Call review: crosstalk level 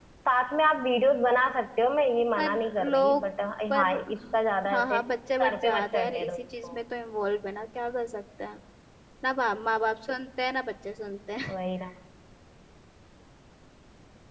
present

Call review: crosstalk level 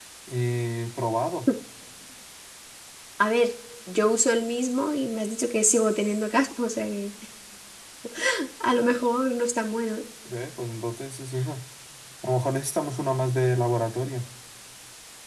none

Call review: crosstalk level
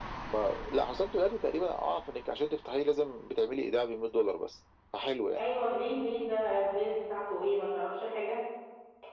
none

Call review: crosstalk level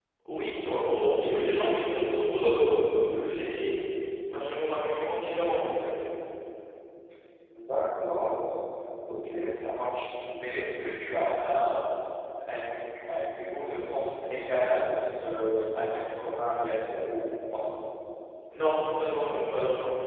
none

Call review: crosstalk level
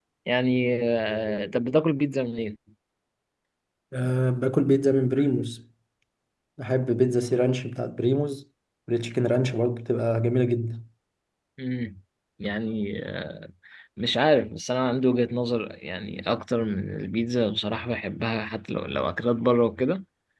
none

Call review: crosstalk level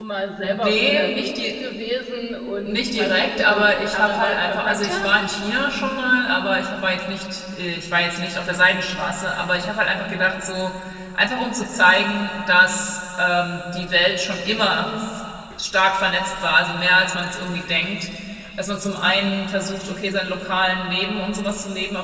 present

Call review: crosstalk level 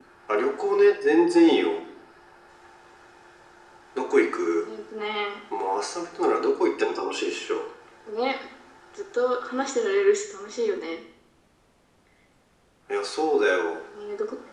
none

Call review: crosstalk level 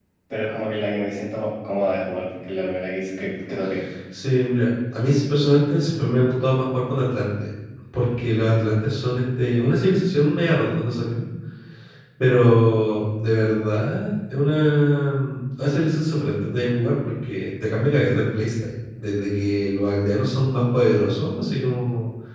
none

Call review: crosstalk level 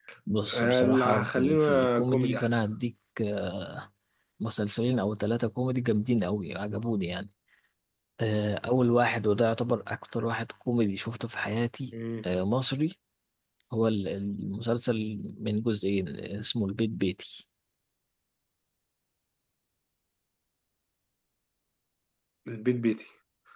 present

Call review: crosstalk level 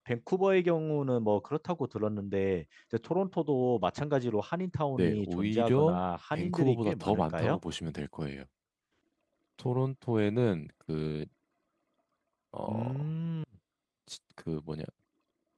present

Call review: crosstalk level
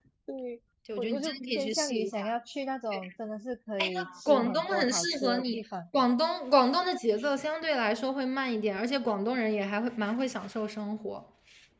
present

